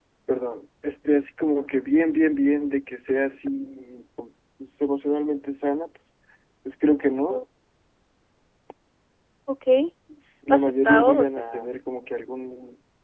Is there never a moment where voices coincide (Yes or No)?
No